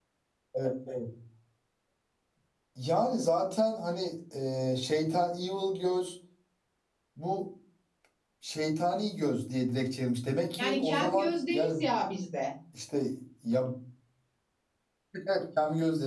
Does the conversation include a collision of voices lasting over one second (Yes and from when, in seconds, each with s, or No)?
Yes, from 10.6 s